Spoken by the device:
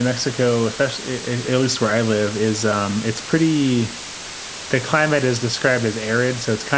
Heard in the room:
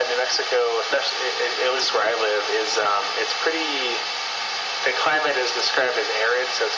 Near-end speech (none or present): none